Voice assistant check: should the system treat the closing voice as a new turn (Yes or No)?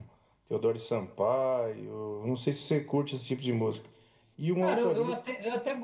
Yes